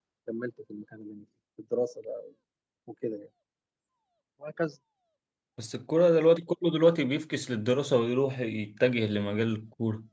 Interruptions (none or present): none